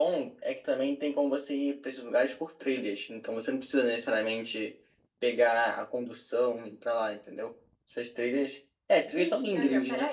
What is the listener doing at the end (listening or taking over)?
taking over